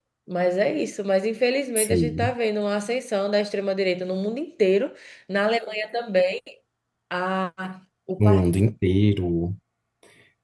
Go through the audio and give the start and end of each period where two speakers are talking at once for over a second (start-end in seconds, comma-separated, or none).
none